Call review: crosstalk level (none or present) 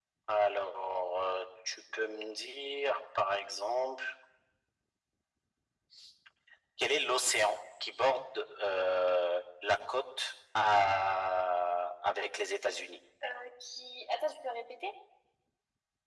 none